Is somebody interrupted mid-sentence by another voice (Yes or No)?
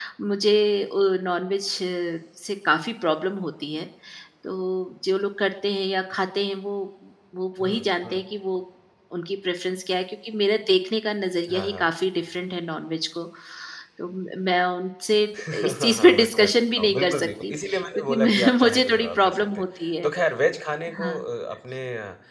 Yes